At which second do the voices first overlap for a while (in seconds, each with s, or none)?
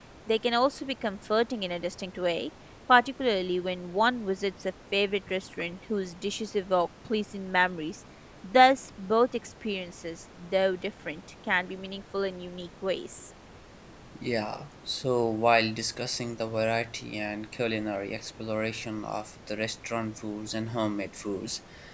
none